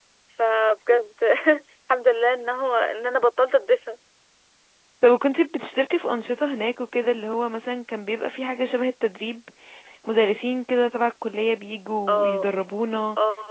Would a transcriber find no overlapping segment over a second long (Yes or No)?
Yes